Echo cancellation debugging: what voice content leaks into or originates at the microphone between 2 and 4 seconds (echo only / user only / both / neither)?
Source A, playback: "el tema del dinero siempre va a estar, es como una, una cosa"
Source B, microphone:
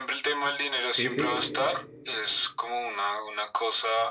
echo only